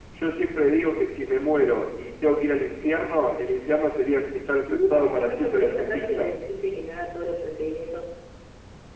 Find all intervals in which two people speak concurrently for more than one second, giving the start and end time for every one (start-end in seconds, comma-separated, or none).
4.7-6.3